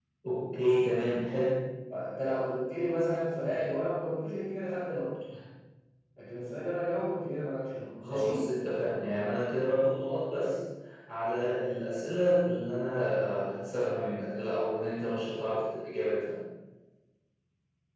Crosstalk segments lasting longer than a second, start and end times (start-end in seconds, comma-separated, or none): none